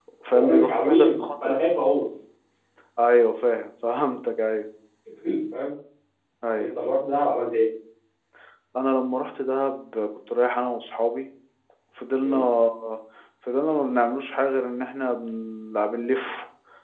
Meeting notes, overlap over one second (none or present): present